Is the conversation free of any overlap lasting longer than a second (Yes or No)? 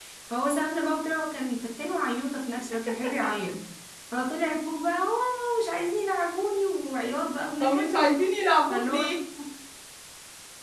Yes